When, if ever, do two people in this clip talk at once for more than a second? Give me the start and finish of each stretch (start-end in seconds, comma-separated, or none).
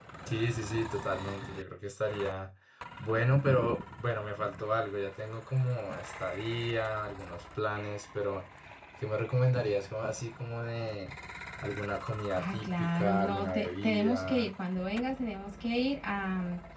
12.3-14.5